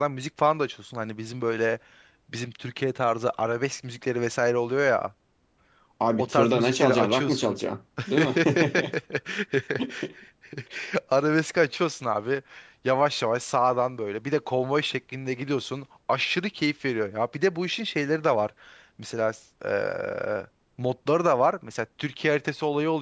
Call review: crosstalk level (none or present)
present